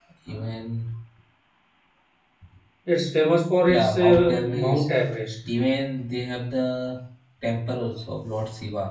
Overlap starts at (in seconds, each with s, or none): 3.7 s